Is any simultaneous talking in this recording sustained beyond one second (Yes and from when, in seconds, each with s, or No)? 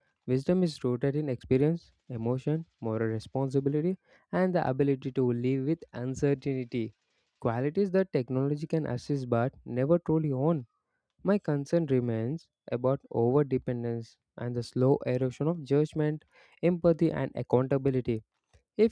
No